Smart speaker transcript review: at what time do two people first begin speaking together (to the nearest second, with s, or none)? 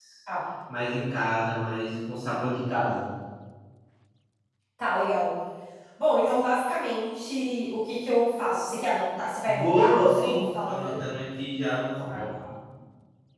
9 s